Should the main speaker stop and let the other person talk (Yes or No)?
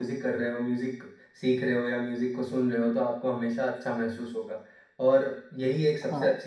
No